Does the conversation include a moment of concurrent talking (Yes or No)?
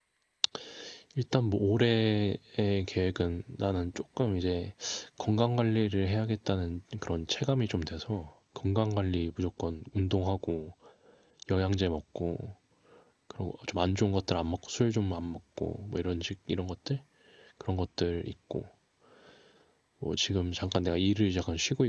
No